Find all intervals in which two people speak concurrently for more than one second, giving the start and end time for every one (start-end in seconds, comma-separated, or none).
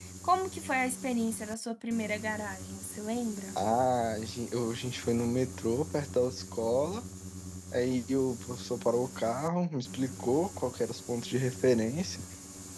none